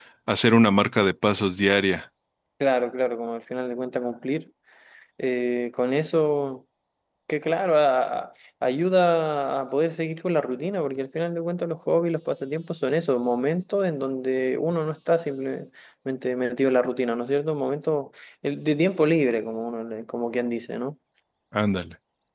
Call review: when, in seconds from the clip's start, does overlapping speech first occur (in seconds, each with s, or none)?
none